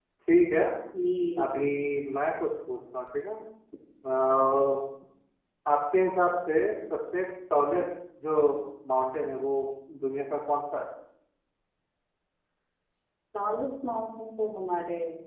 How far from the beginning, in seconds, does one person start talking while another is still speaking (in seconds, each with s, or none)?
none